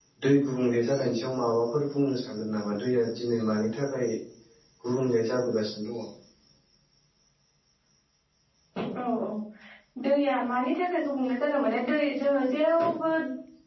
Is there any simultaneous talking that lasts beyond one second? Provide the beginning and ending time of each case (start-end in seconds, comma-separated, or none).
none